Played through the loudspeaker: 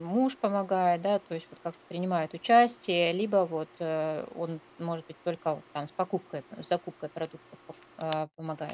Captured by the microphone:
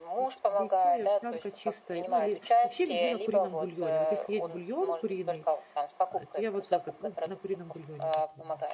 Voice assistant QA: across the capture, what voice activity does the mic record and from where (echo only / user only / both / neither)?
both